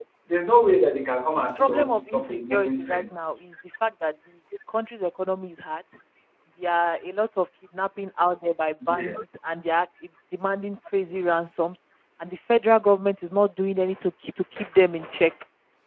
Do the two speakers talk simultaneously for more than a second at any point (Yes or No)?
Yes